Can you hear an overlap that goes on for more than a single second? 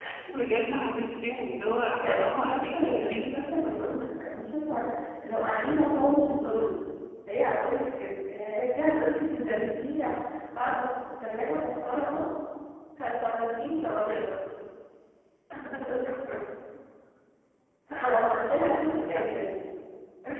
Yes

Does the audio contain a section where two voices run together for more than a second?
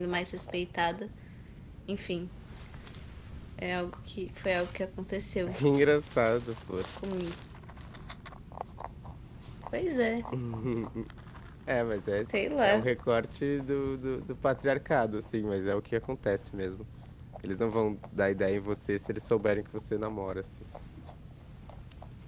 No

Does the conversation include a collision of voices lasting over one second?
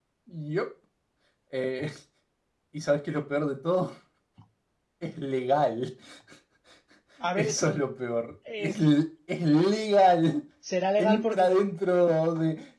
No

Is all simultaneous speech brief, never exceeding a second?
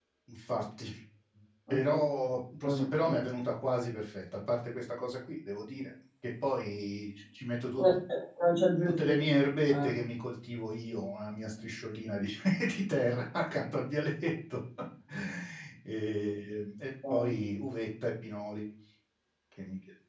Yes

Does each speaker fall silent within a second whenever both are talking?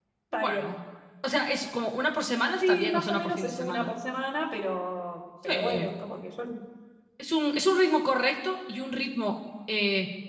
No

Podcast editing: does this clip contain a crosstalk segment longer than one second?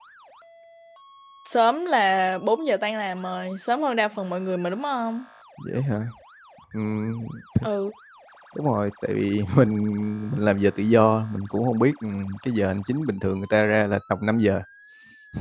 No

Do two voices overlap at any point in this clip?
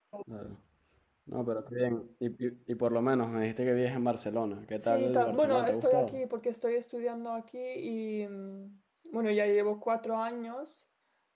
Yes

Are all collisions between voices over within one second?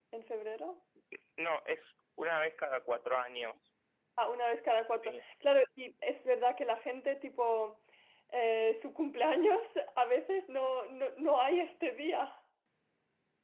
Yes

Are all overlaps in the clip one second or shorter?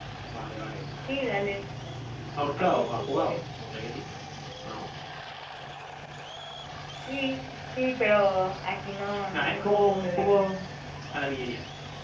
No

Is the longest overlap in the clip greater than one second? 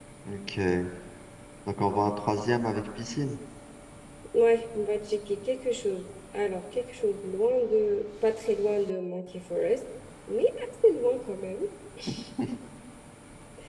No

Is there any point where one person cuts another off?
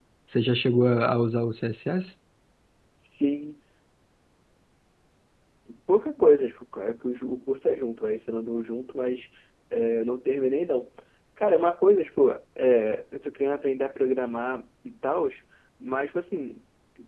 No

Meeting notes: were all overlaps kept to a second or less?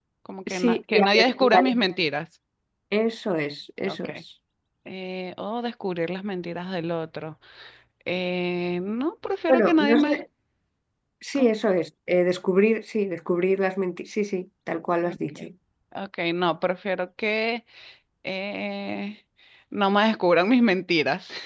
No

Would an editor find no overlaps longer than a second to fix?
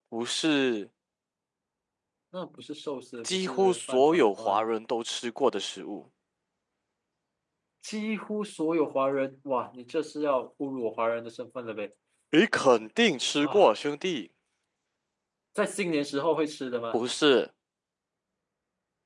No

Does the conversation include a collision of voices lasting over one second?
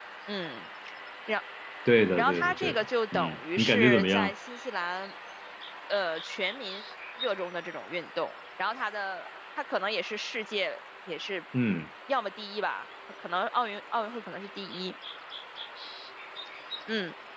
Yes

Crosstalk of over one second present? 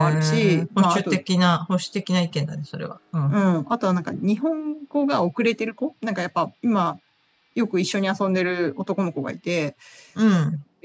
Yes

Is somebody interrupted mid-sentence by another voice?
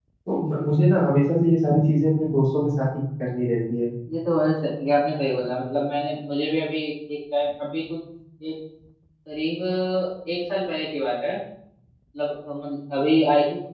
No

